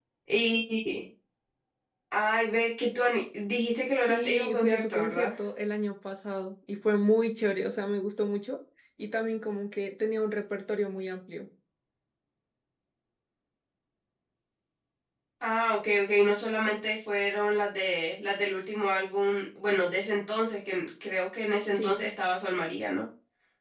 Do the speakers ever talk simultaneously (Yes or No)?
Yes